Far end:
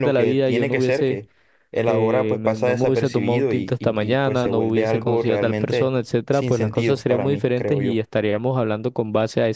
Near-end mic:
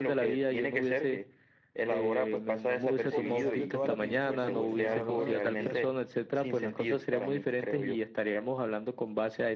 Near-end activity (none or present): present